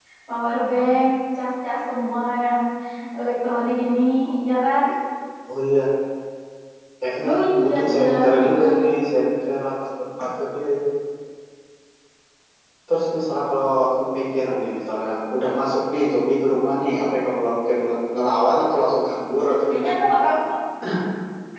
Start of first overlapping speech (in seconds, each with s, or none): 7.2 s